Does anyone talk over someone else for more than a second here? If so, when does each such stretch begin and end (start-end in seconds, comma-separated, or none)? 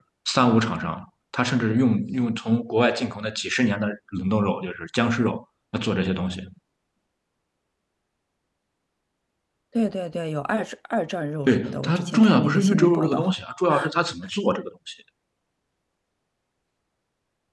11.4-13.3